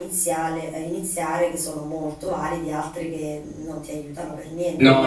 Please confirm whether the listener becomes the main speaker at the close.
Yes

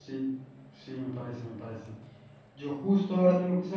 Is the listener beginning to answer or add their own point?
No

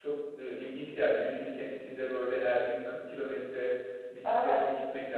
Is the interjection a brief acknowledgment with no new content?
Yes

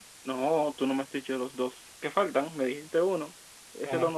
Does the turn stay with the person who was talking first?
No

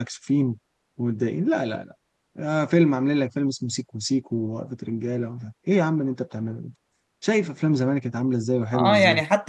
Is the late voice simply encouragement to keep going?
No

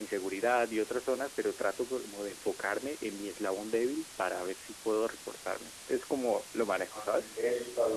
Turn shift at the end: Yes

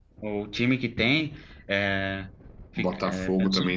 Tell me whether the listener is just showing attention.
No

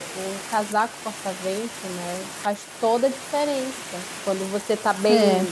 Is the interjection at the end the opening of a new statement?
No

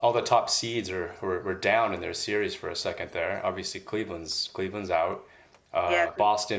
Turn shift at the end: No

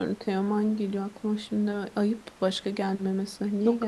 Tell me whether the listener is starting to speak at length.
Yes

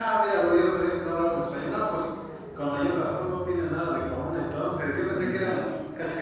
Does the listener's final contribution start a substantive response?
No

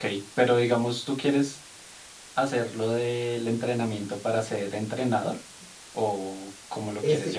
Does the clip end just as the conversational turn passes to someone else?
Yes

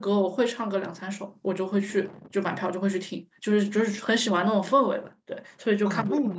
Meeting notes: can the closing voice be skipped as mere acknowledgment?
No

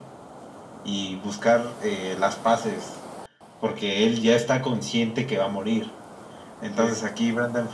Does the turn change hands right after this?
No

